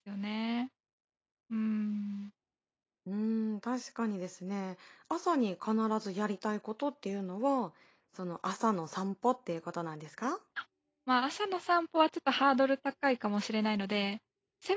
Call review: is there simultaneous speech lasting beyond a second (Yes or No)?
No